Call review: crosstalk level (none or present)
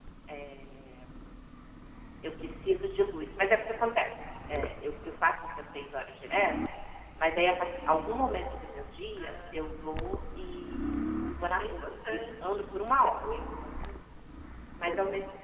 present